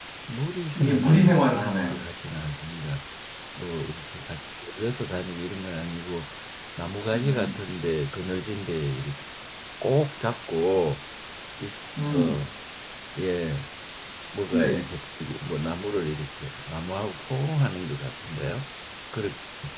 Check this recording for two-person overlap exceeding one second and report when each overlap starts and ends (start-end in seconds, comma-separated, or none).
0.8-2.0